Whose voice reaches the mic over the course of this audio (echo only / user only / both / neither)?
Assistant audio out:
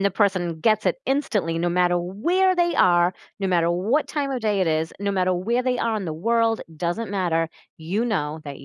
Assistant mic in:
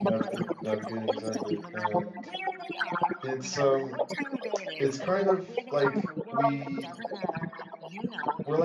both